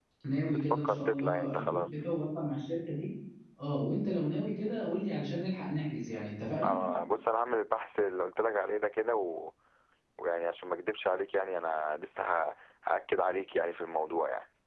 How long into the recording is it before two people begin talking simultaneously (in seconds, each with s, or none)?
0.7 s